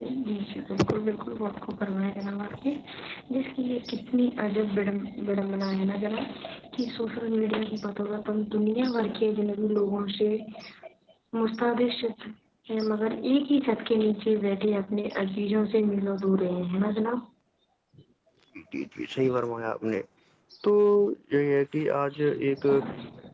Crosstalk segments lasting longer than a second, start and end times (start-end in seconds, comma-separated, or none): none